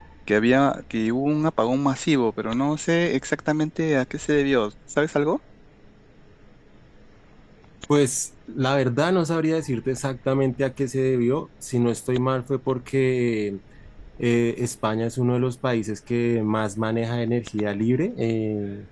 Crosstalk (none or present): none